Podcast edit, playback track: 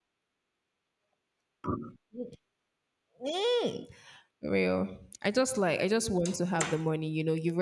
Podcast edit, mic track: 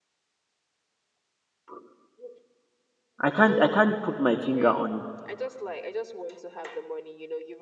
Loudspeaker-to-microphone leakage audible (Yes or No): Yes